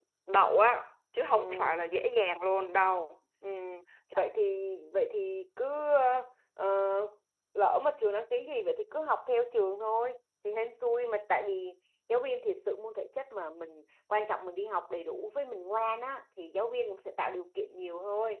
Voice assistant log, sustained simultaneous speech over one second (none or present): none